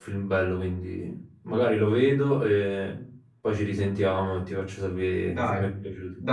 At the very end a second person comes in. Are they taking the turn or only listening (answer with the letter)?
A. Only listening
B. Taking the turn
B